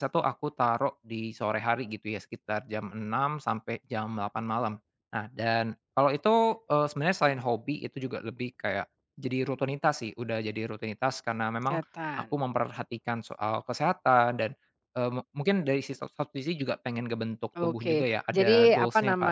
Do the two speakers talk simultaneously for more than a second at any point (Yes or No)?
Yes